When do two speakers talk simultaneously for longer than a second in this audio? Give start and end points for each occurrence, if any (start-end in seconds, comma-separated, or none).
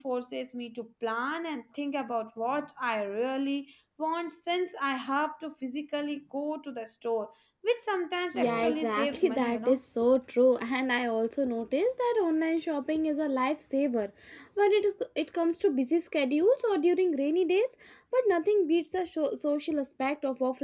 8.3-9.8